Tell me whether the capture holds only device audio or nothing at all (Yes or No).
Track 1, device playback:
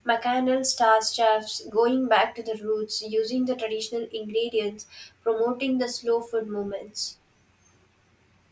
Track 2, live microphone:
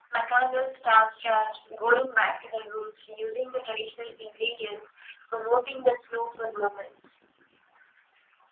Yes